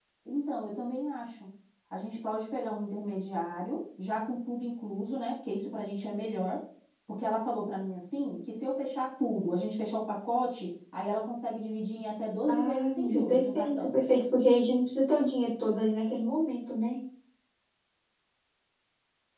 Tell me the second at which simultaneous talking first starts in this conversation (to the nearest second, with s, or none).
12 s